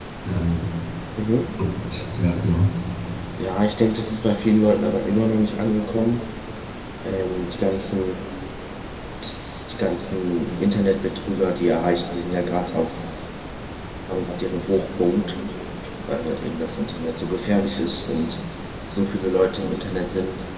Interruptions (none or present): none